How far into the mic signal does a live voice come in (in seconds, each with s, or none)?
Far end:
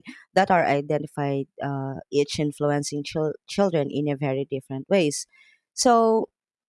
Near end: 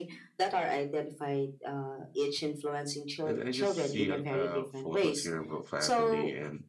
3.3 s